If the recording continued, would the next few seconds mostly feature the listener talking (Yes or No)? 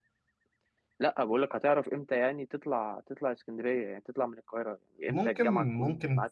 Yes